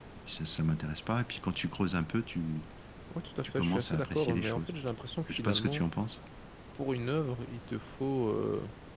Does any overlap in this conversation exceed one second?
Yes, from 3.4 s

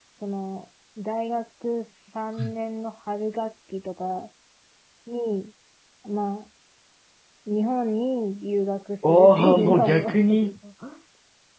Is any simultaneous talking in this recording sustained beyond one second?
Yes, from 9.0 s

